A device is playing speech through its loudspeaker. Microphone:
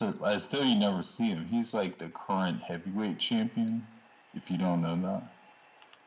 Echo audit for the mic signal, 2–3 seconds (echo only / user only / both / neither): echo only